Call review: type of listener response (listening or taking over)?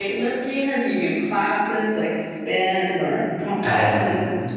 taking over